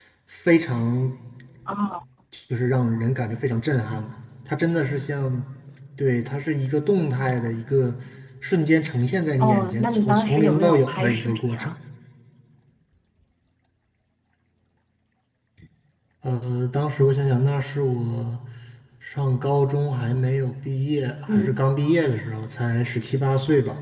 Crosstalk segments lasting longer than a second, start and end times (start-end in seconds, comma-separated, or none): 9.4-11.7